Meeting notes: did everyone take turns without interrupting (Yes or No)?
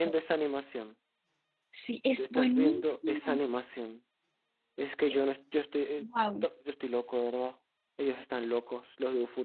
No